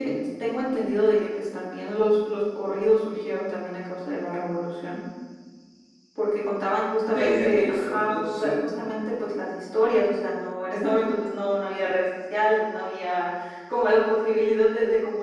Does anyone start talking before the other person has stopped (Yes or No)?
Yes